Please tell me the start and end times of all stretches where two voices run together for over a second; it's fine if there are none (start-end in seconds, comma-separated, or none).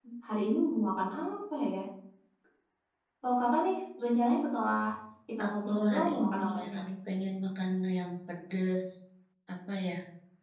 5.4-6.8